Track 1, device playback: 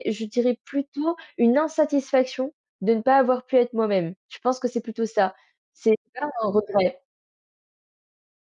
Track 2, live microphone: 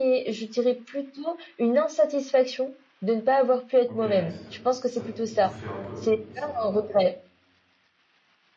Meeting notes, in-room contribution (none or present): present